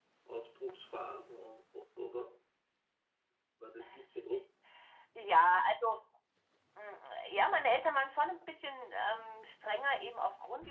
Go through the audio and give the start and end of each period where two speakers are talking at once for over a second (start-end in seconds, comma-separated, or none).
none